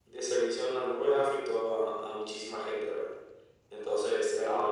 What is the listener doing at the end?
taking over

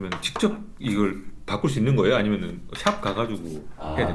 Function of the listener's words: taking over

